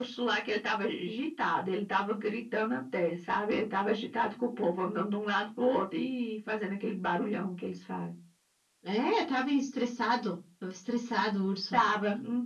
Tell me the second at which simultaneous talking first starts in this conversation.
none

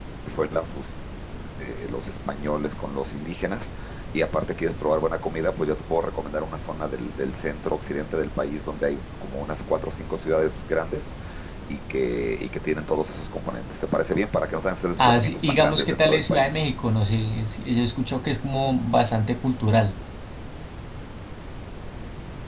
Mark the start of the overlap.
15.0 s

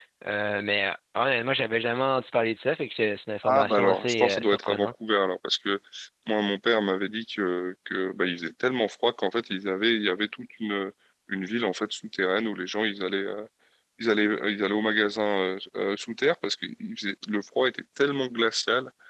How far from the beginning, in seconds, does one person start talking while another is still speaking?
3.4 s

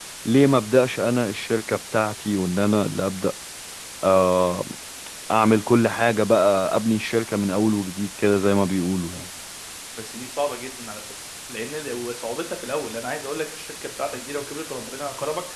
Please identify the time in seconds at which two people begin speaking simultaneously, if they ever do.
none

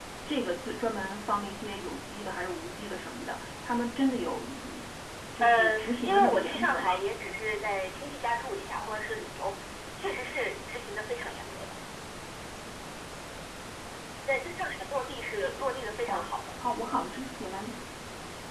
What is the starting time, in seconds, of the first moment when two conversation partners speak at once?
5.4 s

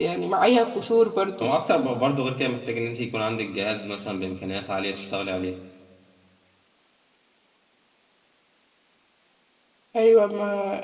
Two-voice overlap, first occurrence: none

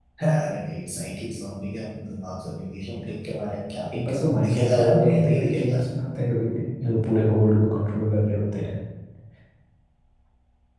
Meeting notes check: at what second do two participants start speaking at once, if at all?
3.9 s

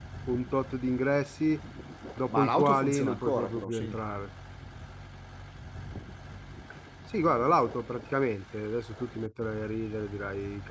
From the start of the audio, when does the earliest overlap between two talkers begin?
2.3 s

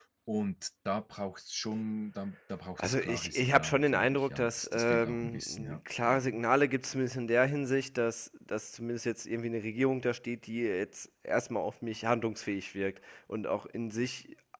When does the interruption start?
2.8 s

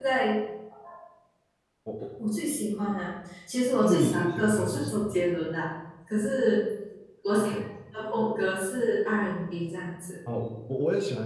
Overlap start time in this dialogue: 3.8 s

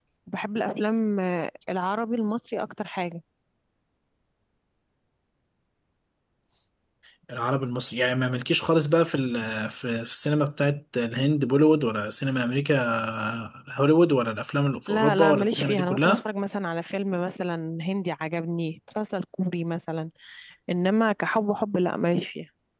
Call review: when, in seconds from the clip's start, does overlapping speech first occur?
14.9 s

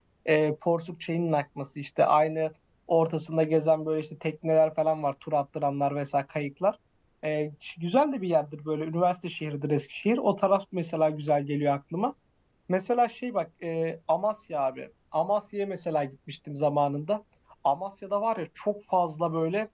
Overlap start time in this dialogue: none

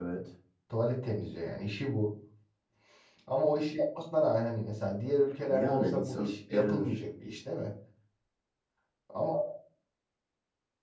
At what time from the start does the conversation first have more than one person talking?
5.5 s

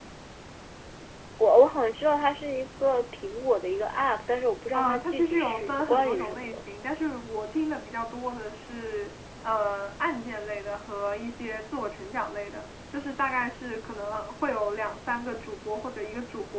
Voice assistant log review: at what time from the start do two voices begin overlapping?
4.7 s

